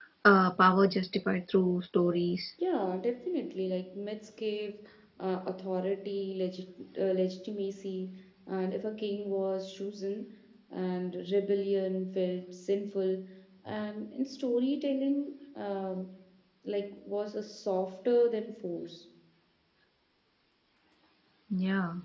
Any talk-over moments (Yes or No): No